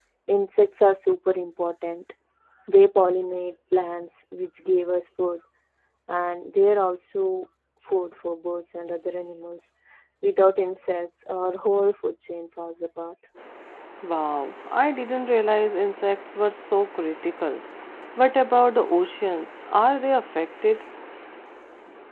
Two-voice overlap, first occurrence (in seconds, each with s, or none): none